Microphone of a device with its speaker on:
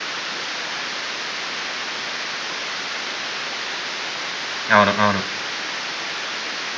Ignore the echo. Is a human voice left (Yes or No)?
Yes